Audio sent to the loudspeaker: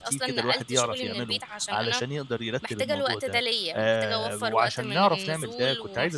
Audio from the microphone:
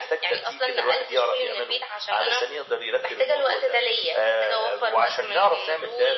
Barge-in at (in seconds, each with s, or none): none